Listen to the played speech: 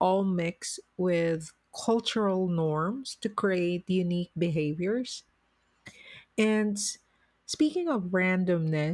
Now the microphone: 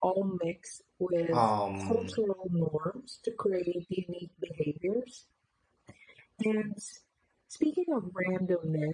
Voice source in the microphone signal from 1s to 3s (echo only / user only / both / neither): both